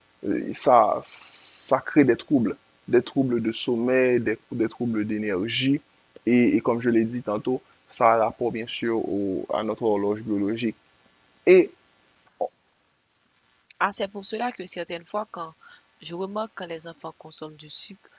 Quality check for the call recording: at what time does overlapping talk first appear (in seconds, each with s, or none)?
none